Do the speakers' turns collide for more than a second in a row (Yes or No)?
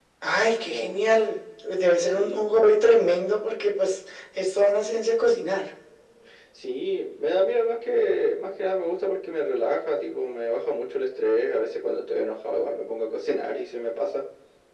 No